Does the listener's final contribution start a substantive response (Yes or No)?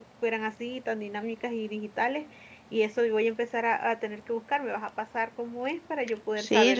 Yes